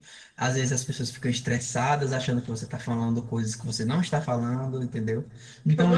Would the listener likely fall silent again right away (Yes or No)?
Yes